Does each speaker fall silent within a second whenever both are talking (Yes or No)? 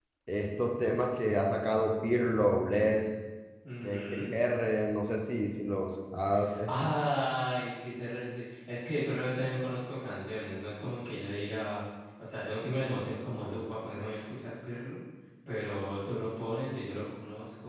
Yes